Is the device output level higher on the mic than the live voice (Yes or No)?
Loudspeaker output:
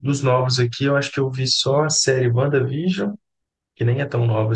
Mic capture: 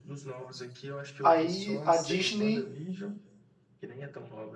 No